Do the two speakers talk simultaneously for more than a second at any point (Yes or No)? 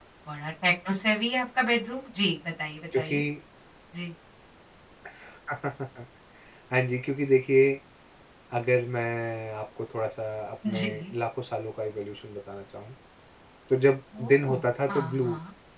Yes